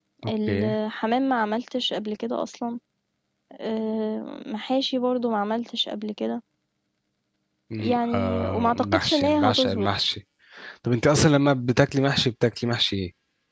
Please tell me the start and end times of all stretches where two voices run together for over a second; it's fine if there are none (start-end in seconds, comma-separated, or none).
7.8-9.9